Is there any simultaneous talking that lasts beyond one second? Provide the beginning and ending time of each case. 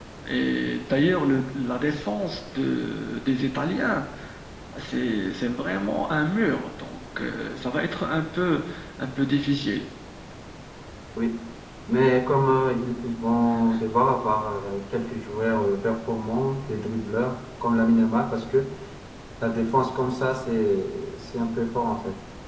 none

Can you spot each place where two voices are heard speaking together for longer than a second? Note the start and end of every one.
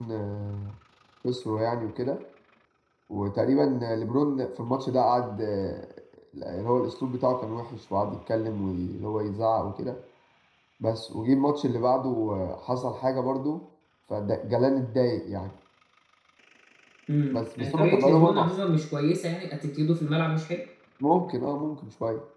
17.3-18.6

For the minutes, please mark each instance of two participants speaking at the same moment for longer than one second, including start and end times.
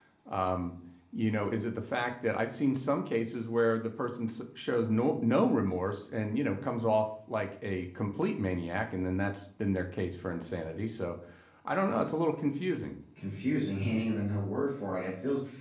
none

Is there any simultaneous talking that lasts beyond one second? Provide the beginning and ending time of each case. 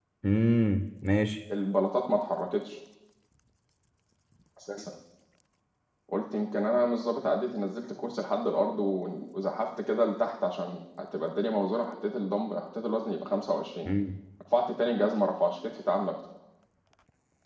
none

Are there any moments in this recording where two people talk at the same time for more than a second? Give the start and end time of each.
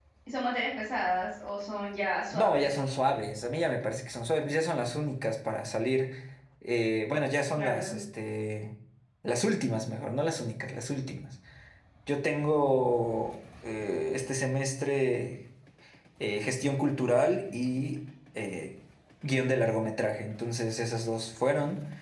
none

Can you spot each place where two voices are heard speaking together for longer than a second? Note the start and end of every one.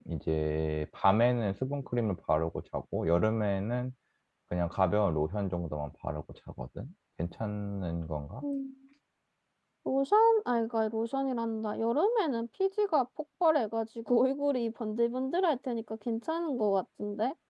none

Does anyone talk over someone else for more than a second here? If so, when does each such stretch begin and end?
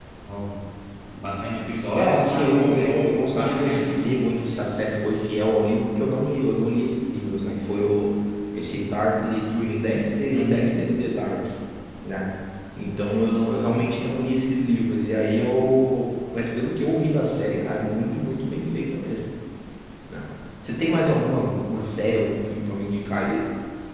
1.9-3.9

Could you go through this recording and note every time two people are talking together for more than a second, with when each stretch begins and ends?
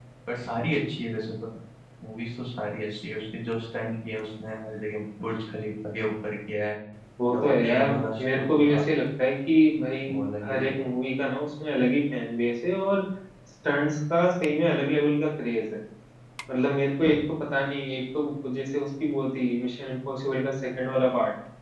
7.3-8.8

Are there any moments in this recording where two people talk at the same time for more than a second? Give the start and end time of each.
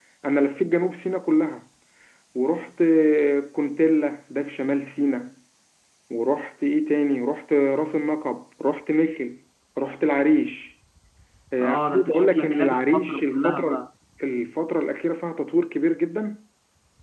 11.6-13.8

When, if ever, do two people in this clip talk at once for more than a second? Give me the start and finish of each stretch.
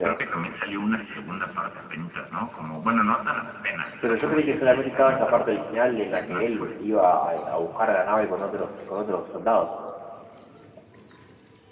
4.0-6.7

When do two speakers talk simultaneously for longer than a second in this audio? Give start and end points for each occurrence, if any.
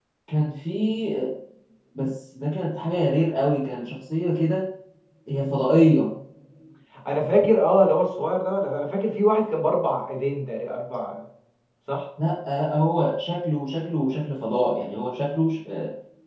none

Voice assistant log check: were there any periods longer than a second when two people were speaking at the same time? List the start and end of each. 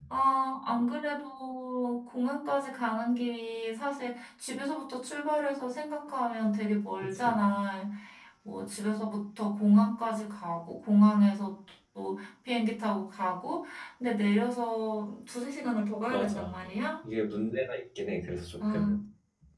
none

